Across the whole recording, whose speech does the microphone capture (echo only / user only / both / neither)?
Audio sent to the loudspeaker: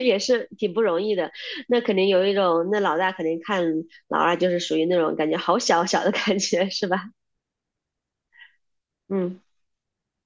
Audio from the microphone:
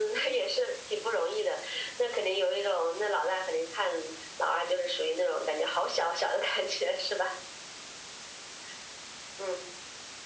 echo only